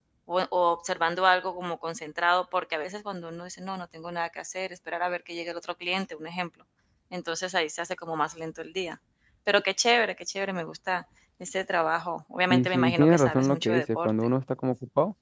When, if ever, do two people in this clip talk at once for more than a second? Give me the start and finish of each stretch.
12.5-14.1

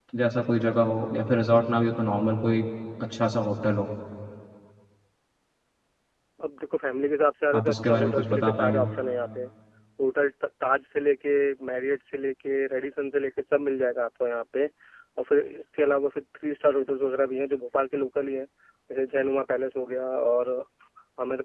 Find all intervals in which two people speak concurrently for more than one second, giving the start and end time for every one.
7.5-8.8

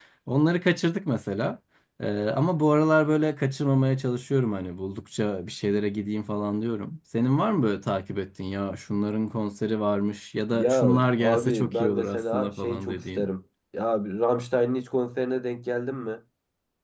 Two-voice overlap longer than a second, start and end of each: 10.5-13.3

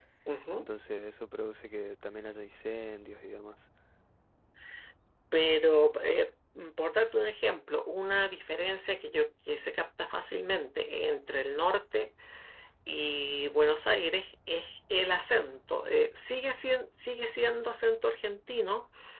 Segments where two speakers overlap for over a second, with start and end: none

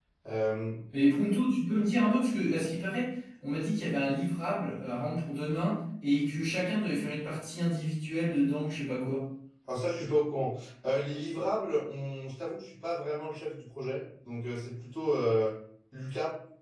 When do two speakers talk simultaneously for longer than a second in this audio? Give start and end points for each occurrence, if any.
none

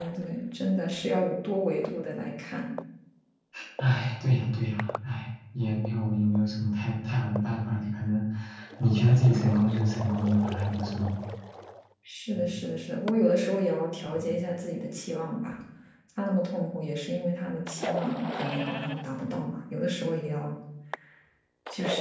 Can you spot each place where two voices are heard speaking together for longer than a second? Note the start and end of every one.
none

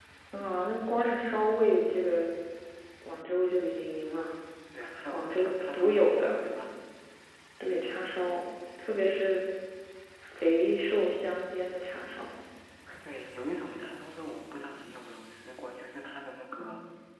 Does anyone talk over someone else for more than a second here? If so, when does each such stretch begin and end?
5.1-6.4

